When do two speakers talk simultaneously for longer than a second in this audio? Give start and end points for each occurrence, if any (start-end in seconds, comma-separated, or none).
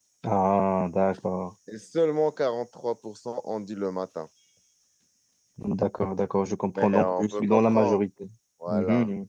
6.8-8.0